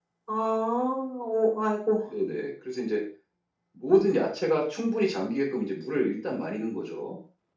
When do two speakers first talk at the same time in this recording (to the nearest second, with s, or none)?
none